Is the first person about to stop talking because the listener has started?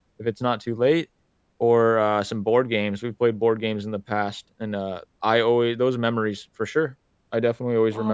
Yes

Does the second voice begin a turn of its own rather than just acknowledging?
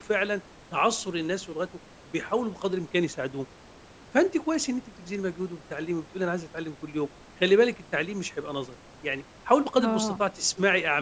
No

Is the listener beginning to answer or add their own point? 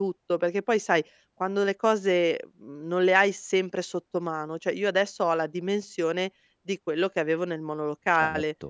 No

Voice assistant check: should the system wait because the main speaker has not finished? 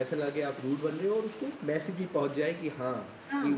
No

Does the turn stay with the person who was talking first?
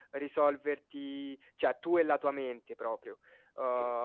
Yes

